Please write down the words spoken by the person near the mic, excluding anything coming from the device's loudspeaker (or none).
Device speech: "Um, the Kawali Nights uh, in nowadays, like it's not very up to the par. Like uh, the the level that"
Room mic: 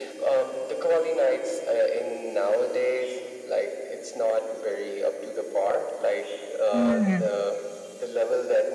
Mm-hmm.